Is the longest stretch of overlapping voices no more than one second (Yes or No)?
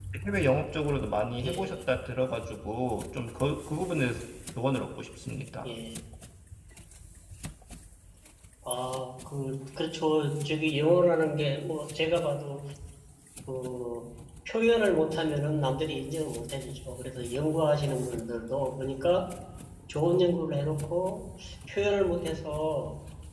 Yes